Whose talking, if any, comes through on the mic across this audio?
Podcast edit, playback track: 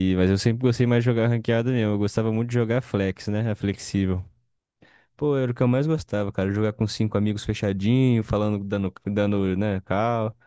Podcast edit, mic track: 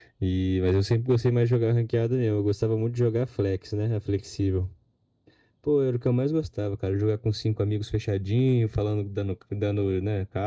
echo only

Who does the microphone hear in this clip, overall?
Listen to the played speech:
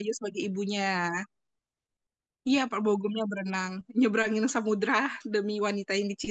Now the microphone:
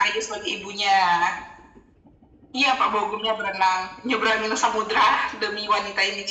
echo only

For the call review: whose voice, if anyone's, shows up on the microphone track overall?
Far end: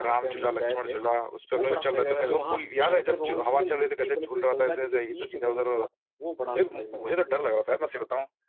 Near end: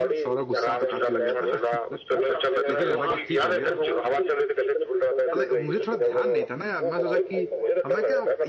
both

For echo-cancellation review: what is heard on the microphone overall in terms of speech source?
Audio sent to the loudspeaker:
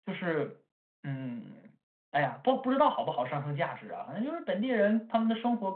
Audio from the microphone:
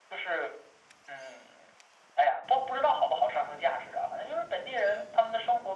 echo only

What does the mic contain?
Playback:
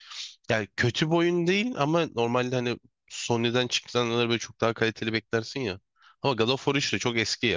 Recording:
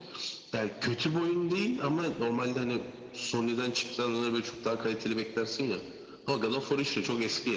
echo only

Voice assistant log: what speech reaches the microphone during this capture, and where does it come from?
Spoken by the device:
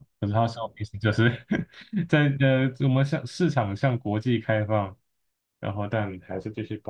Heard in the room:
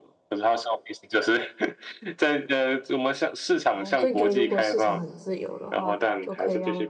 both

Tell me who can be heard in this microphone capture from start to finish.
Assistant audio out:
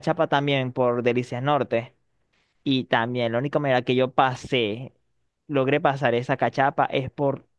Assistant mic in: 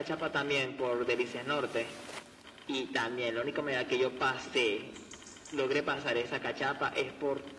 echo only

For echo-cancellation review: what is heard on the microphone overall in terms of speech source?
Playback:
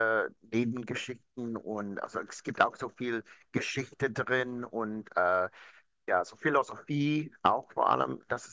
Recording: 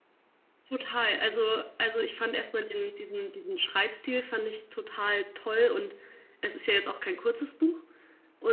user only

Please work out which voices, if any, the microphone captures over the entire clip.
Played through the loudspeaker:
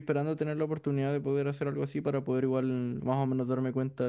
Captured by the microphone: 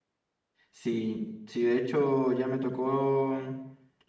user only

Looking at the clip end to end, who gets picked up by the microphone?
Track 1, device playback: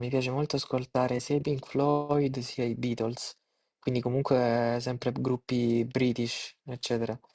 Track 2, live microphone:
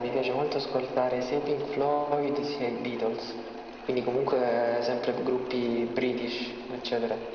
echo only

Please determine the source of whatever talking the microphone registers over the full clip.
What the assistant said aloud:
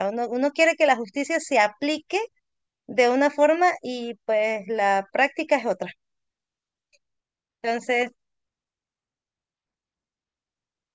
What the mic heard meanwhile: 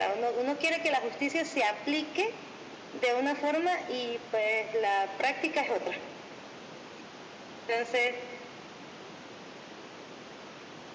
echo only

